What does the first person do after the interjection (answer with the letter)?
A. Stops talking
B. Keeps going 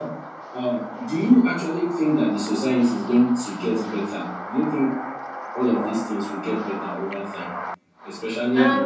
A